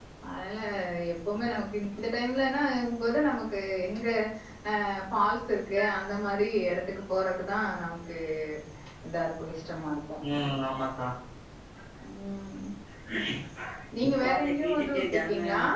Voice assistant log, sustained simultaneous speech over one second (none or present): present